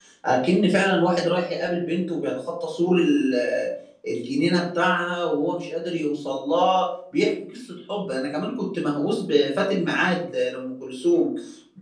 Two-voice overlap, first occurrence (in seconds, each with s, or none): none